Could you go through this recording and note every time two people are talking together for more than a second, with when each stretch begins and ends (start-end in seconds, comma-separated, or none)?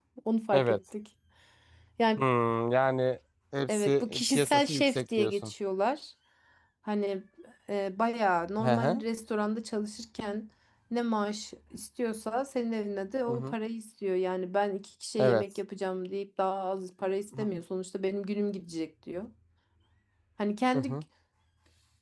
3.7-5.5